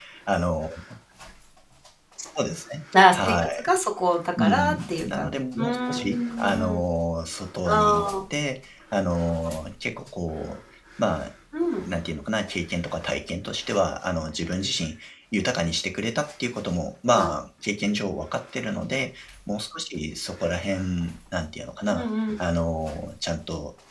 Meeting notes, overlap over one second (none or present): present